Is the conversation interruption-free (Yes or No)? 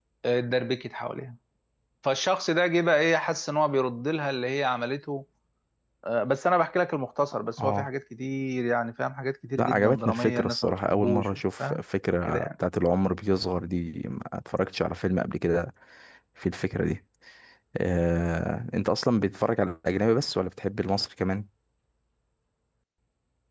No